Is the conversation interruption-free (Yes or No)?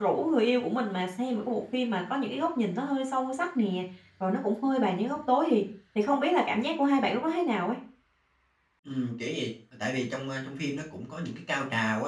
Yes